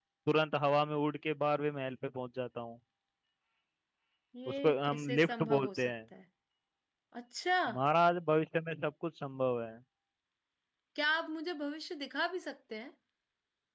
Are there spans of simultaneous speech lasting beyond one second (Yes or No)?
Yes